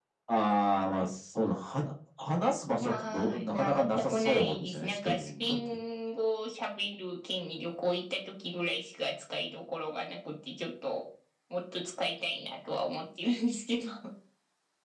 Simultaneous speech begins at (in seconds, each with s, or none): 2.6 s